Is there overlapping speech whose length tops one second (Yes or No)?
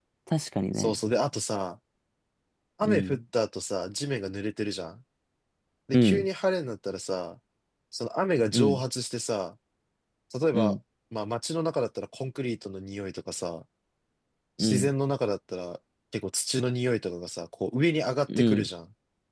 No